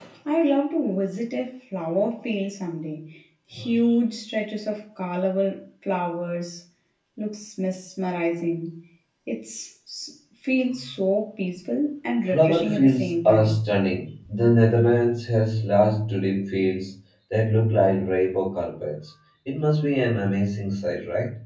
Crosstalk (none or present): present